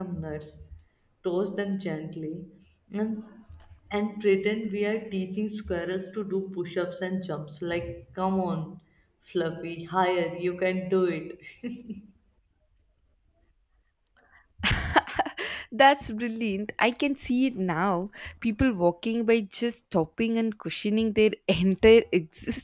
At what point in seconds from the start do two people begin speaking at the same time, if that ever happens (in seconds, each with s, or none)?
none